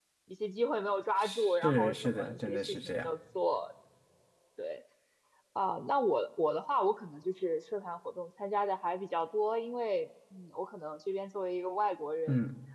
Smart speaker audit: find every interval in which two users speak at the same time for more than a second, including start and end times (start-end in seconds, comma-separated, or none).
1.2-3.1